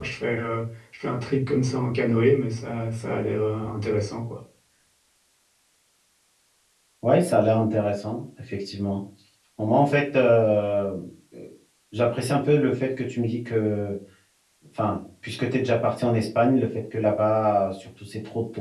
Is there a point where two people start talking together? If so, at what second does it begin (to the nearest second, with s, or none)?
none